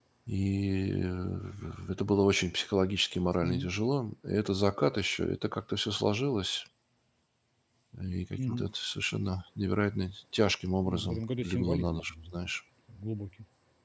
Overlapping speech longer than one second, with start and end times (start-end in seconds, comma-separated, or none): 10.8-12.4